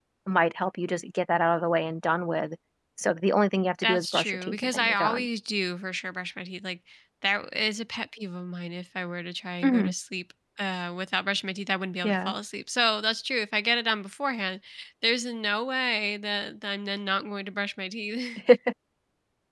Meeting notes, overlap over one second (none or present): present